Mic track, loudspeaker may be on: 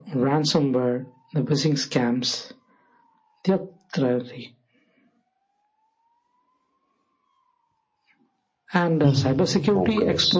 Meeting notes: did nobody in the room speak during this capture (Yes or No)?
No